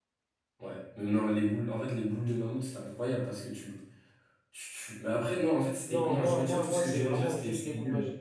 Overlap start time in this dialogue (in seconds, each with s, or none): 5.9 s